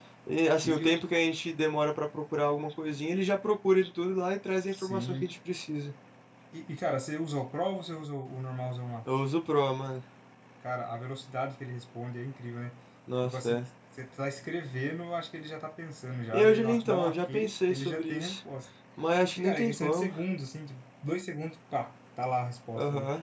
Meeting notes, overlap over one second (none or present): present